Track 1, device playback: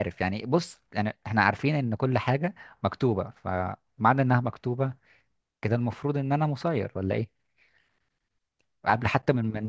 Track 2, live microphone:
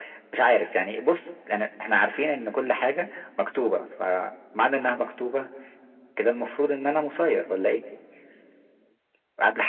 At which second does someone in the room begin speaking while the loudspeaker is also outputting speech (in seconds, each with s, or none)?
none